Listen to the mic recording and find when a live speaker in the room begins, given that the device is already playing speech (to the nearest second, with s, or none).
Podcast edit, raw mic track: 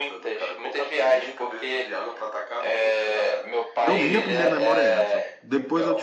4 s